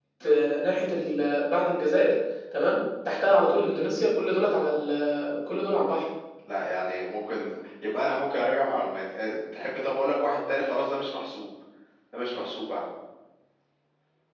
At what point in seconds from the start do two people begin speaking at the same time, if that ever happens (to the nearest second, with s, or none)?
none